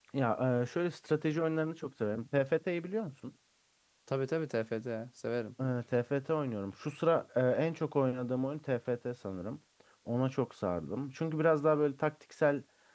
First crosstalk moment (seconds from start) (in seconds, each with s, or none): none